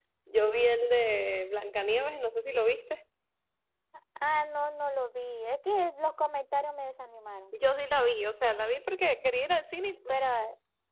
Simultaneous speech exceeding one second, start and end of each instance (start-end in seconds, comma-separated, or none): none